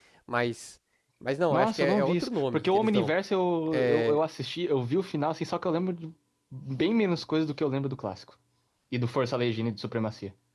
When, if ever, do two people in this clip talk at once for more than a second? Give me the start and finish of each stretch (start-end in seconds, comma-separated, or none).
1.5-3.1